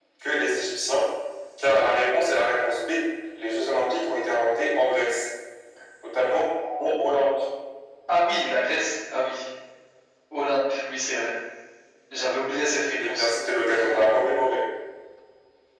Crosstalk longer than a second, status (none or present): none